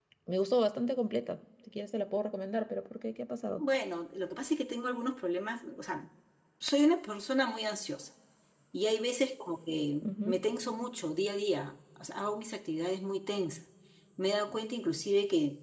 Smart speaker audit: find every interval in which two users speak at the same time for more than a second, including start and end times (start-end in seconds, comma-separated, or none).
none